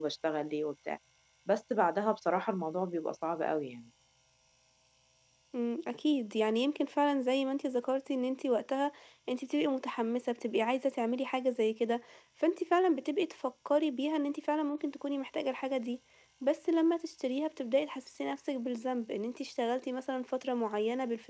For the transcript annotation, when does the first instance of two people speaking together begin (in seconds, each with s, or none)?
none